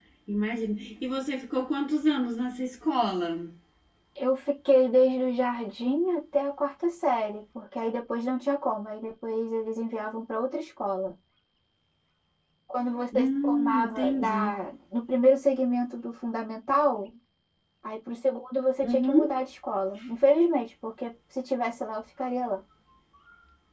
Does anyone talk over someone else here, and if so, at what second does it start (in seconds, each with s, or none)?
13.2 s